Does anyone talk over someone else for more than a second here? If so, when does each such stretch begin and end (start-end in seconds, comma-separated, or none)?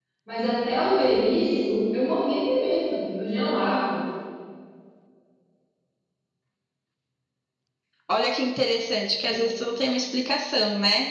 none